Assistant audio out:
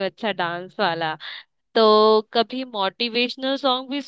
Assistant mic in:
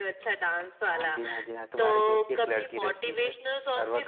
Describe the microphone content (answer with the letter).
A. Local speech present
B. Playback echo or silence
A